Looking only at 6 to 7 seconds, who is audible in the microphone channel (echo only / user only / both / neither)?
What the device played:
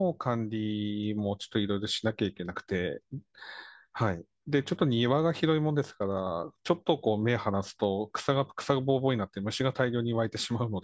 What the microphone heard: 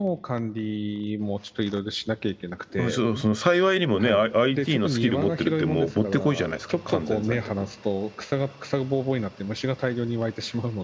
both